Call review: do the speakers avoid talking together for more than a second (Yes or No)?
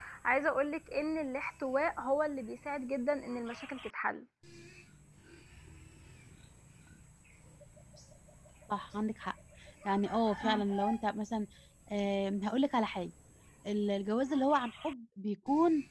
Yes